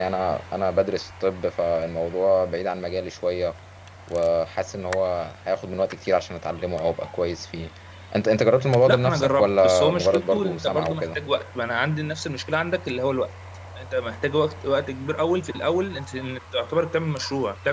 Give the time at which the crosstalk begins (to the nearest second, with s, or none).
9 s